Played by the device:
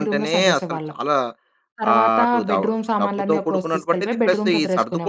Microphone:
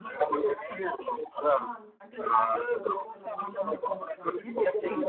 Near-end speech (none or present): present